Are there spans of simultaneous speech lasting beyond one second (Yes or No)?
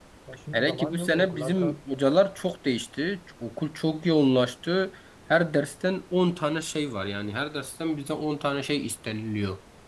Yes